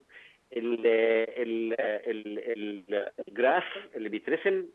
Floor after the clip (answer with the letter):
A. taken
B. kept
B